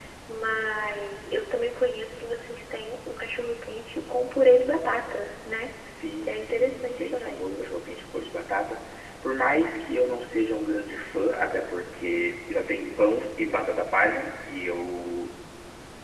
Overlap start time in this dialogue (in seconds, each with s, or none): 6.2 s